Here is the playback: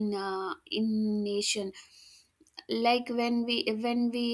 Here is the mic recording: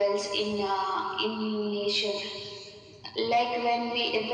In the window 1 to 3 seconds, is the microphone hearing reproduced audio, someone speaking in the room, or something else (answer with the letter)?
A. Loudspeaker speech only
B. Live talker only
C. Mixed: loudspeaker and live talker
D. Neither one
A